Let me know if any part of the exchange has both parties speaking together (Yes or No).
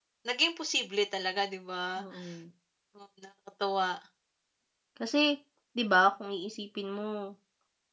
No